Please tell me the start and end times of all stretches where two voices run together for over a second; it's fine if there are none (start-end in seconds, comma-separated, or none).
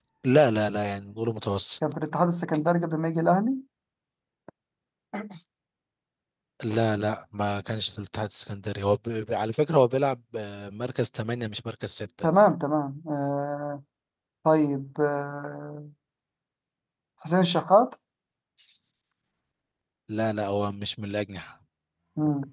none